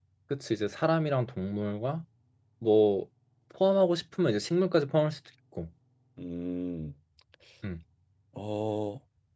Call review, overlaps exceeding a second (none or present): none